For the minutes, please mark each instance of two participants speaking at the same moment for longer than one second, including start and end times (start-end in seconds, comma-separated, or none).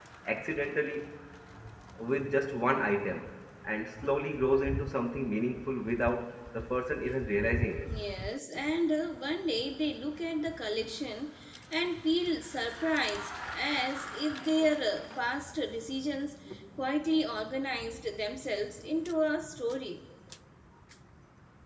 none